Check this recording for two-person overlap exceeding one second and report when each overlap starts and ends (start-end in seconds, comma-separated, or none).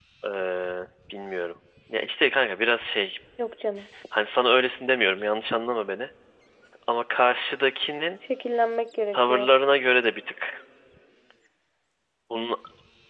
none